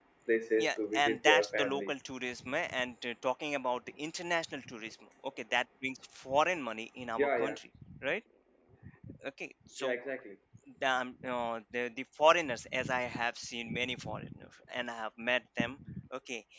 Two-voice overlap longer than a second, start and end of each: 0.6-1.9

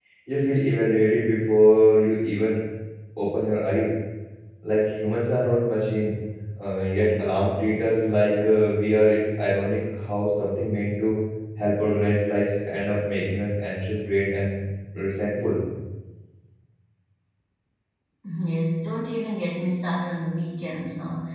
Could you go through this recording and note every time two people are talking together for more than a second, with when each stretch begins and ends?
none

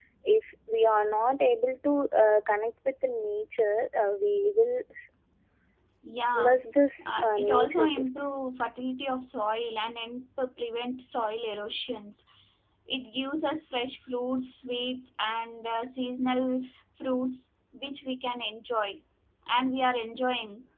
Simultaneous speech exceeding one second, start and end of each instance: 7.0-8.3

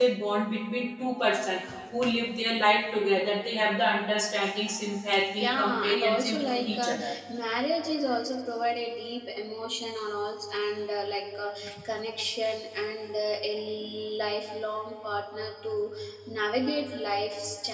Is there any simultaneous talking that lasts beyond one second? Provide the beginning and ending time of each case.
5.4-7.1

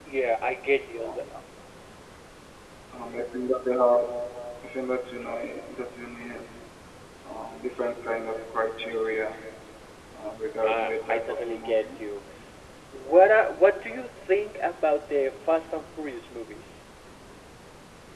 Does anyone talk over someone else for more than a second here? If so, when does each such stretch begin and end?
10.6-11.9

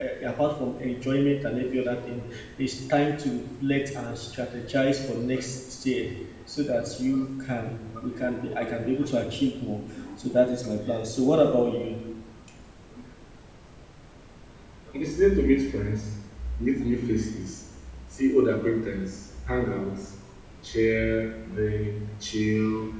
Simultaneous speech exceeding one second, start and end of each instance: none

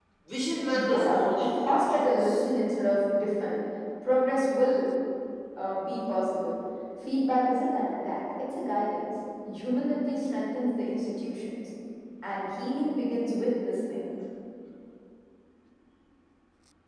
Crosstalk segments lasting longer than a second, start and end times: 0.7-2.4

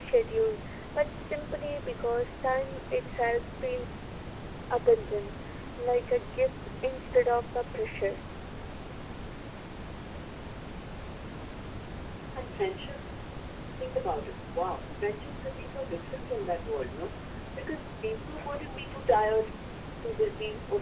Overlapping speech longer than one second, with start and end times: none

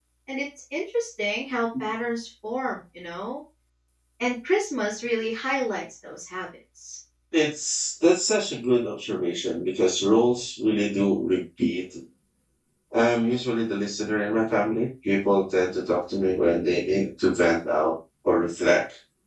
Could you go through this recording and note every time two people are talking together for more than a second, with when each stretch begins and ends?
none

